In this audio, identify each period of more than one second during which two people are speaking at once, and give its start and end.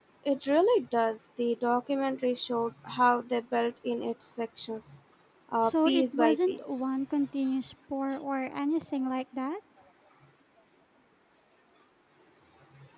5.6-6.9

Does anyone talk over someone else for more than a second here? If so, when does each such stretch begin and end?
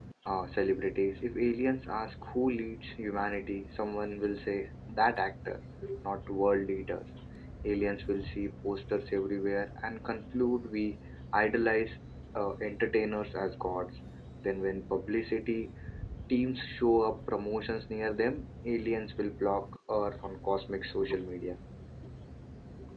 none

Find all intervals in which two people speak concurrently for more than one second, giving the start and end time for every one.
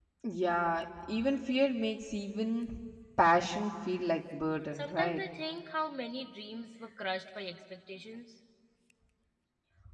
none

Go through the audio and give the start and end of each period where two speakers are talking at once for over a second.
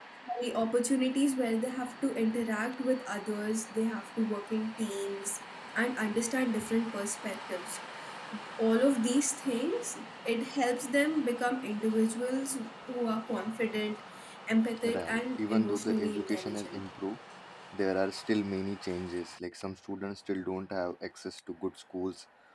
14.8-16.8

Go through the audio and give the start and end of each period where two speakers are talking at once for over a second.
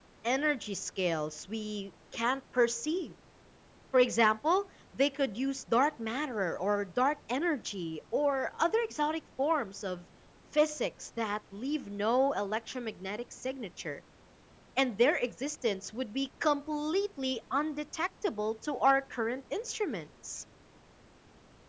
none

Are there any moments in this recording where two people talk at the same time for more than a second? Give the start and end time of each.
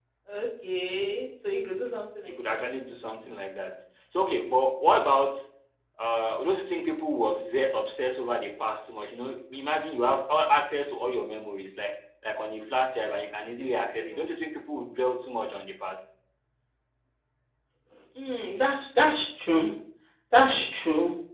none

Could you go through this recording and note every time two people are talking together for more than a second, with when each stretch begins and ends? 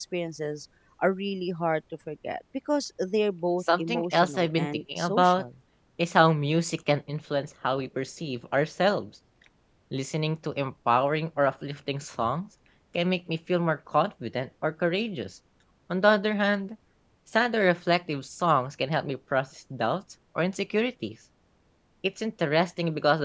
3.8-5.4

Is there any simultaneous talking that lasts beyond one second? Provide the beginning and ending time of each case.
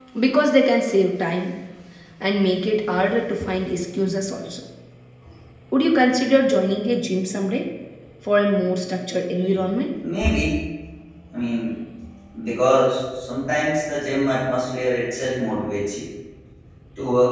none

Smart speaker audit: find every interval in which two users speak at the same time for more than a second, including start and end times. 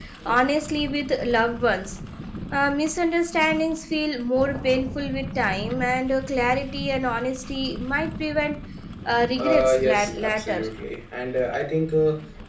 9.4-10.6

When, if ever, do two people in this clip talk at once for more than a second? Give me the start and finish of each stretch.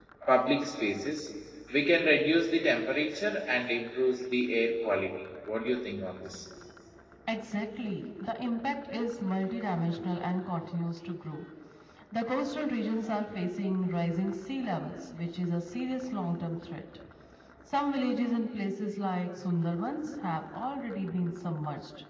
none

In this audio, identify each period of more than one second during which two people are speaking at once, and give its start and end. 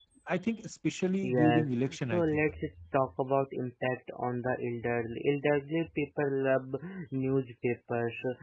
1.2-2.4

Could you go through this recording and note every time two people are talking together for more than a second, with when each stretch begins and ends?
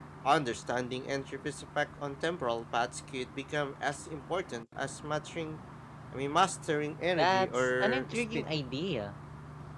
7.2-8.5

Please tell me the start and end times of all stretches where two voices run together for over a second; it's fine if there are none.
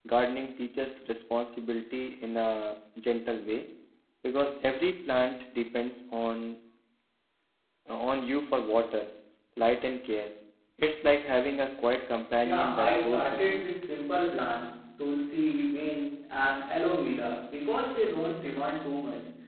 12.4-13.7

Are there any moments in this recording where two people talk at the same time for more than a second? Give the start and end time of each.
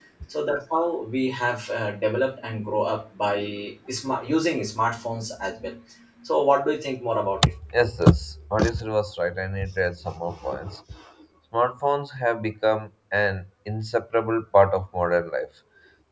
none

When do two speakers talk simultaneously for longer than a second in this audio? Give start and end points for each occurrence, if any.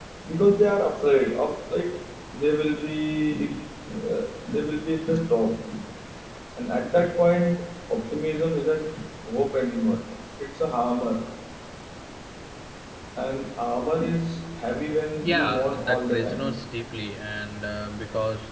15.2-16.6

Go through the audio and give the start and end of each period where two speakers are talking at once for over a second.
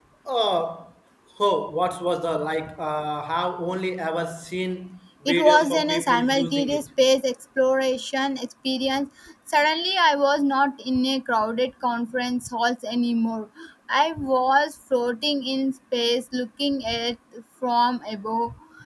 5.2-6.9

